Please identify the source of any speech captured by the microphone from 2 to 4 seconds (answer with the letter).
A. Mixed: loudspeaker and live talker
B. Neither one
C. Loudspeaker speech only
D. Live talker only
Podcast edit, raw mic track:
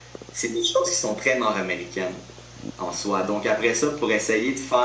C